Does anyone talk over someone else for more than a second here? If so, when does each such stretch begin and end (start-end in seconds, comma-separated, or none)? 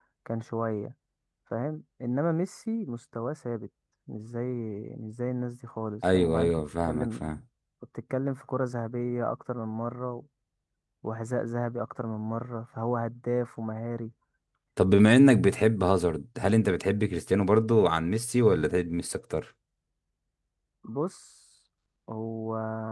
6.1-7.3